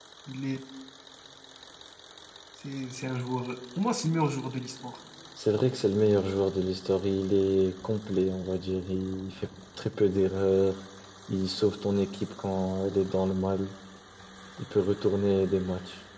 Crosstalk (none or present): none